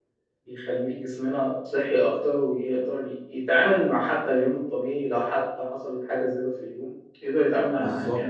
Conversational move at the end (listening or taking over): taking over